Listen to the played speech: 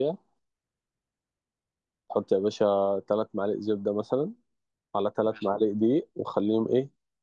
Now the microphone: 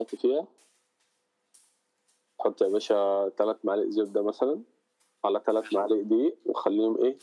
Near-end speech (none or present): none